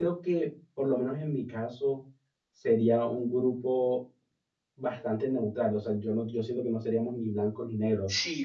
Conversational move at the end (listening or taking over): taking over